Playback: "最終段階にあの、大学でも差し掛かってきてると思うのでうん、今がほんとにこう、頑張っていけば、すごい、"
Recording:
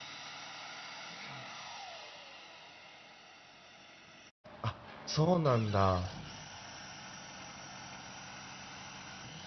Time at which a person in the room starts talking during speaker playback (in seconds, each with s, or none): 4.6 s